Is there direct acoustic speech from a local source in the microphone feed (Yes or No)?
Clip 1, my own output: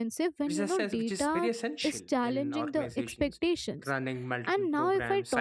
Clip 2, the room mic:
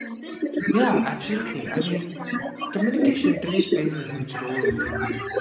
Yes